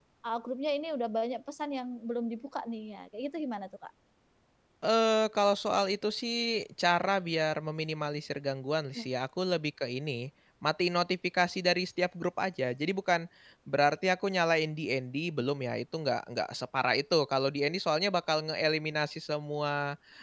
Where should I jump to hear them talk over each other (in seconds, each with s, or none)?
none